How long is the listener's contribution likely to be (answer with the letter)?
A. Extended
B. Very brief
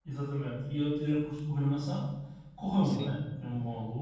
B